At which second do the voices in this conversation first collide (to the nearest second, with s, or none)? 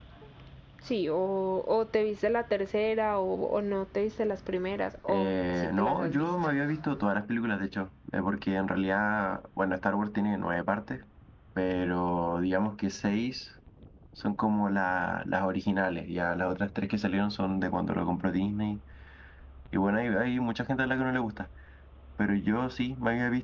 5 s